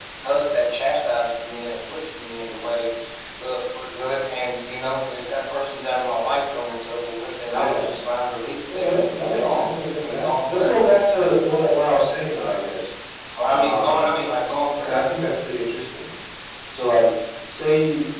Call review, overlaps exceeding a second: present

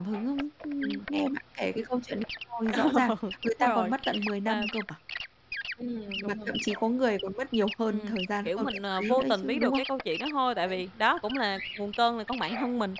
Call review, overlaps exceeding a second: present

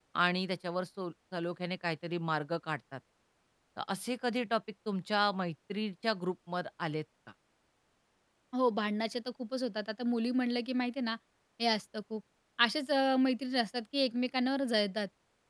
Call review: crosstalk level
none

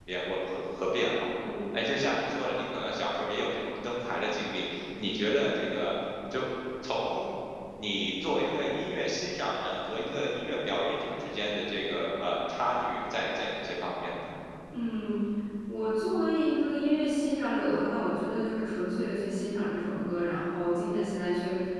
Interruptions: none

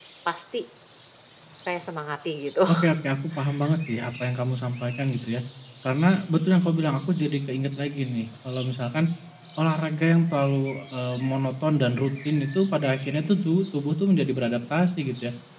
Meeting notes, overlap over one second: none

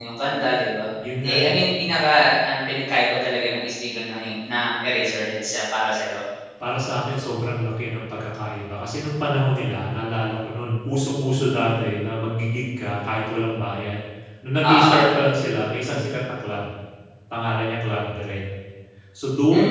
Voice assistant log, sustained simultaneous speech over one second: none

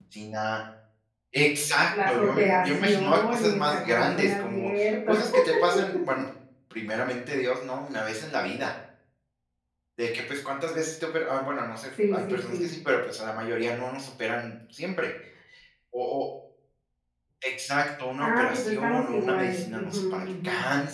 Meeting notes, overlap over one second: present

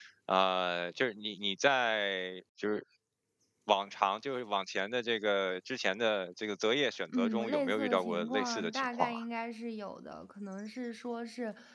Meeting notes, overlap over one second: present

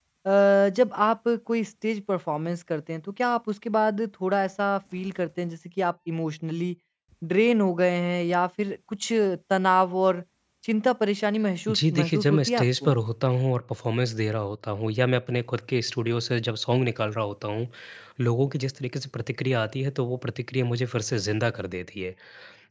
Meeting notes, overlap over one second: present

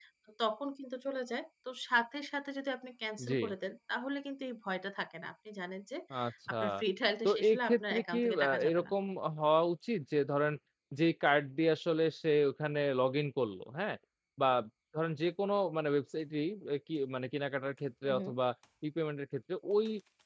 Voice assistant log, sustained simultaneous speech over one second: present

